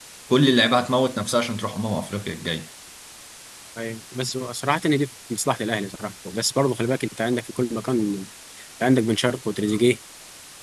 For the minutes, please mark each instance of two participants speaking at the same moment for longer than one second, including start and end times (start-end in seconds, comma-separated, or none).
none